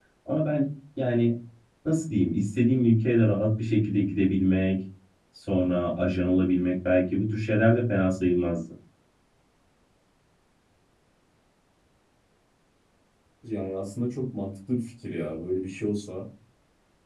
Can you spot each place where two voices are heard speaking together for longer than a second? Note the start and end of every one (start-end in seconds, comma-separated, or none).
none